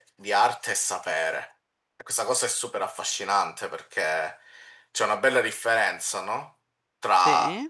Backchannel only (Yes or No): Yes